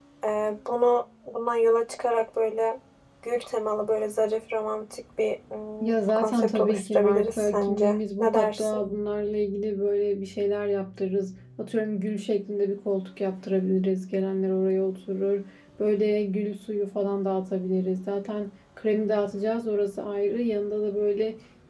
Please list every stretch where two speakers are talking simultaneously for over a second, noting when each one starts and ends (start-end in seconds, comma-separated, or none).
5.9-8.8